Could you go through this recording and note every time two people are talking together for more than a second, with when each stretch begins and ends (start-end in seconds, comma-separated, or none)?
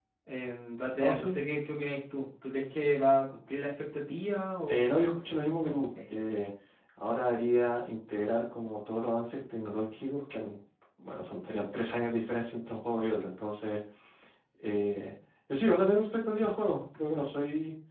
4.7-5.9